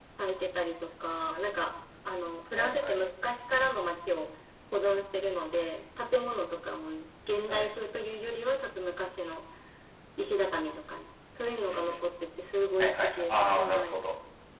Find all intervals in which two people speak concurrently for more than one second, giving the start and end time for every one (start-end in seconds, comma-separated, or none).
12.8-14.0